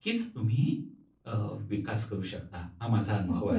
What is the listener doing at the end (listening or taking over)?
taking over